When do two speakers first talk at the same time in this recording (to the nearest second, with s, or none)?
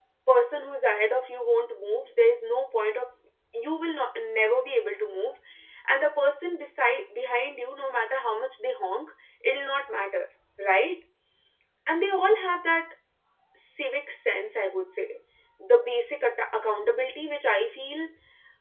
none